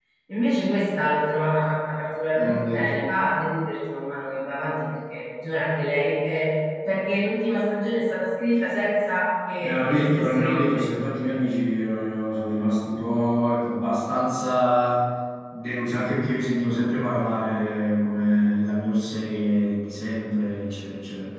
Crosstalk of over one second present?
Yes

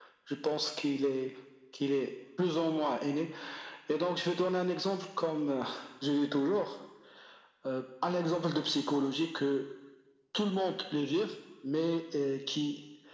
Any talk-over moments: No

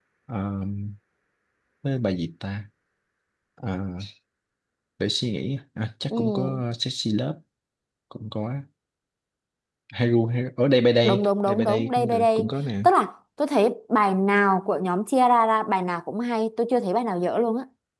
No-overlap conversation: No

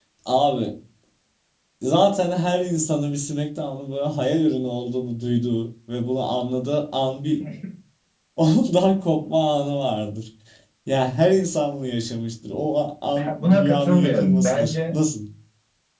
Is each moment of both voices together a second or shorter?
No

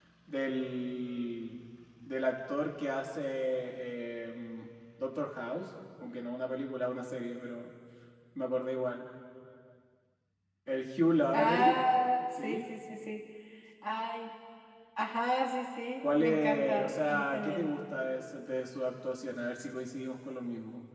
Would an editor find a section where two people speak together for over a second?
Yes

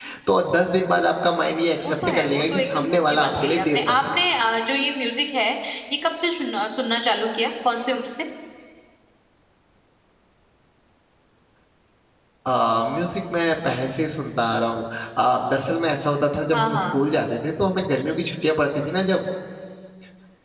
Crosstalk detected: Yes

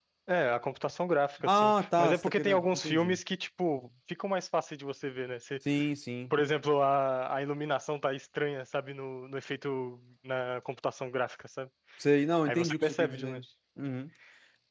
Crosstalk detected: Yes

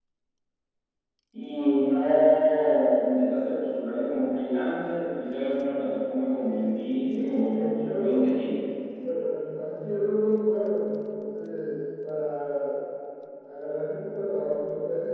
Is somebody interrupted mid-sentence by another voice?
Yes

